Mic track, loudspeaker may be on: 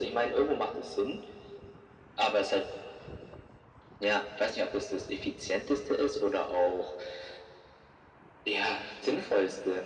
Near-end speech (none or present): none